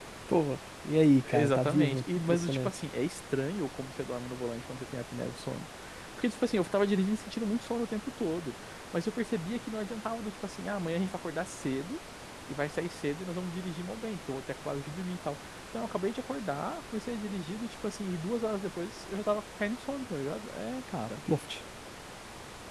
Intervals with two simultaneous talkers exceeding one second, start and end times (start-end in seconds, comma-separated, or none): 1.2-2.7